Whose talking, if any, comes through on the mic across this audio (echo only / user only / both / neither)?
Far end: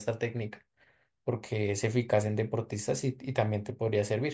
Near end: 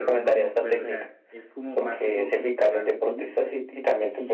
both